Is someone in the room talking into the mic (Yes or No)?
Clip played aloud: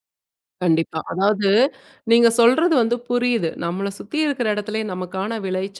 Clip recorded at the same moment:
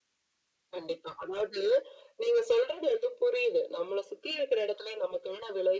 No